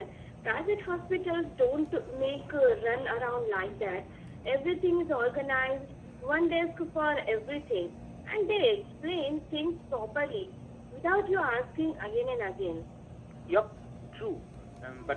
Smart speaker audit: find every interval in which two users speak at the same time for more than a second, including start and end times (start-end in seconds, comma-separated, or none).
none